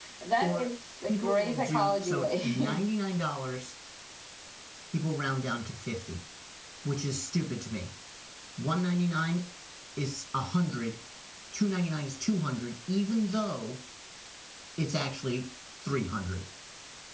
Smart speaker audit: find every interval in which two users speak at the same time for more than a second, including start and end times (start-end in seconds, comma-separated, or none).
1.1-2.8